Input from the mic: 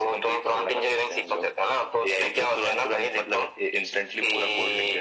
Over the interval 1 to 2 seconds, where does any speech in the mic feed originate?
echo only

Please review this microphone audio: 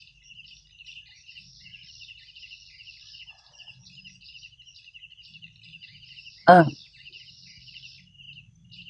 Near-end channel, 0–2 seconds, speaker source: neither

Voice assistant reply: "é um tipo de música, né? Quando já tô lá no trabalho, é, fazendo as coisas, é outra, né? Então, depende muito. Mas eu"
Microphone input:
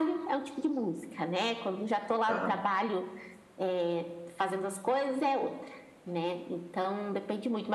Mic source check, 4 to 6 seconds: echo only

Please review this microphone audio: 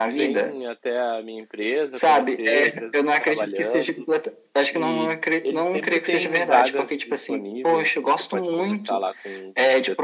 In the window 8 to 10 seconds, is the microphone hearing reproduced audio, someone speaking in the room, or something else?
both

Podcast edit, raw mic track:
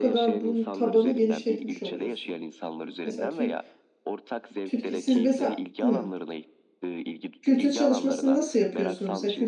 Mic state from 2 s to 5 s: both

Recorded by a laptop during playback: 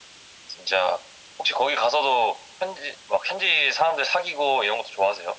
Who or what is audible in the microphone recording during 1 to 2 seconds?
echo only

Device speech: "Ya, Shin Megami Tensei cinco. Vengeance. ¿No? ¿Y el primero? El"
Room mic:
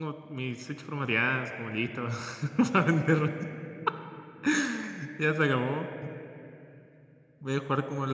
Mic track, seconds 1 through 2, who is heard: user only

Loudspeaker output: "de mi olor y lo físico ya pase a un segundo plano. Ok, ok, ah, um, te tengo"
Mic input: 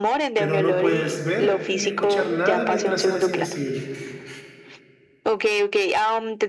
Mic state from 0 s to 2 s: both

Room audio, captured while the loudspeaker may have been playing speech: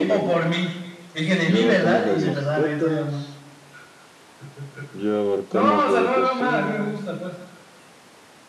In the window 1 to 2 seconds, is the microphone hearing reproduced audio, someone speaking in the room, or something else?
both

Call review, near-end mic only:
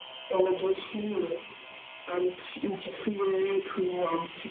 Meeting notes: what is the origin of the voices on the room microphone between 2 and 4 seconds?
echo only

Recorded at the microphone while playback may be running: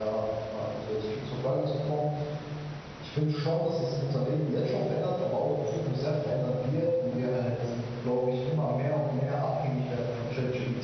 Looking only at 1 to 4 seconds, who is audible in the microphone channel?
user only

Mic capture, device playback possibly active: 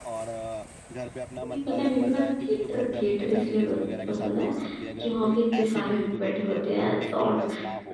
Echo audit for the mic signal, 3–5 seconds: both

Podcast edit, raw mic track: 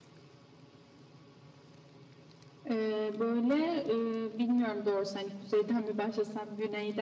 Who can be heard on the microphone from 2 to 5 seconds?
echo only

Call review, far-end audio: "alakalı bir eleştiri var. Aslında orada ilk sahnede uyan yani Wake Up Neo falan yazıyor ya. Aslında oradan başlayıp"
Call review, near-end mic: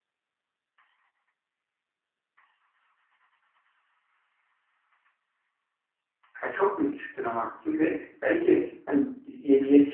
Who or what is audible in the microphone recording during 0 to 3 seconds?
neither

